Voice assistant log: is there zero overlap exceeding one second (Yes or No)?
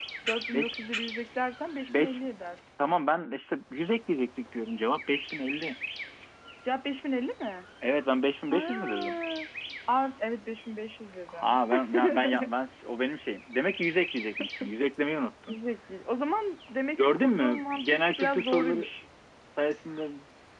No